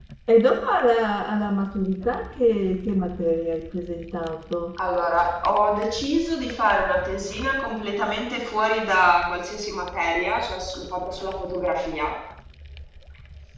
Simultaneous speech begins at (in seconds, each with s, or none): none